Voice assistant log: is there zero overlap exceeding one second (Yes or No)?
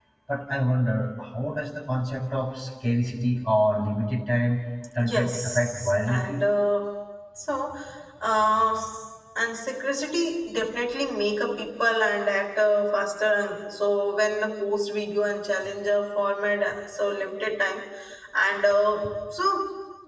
No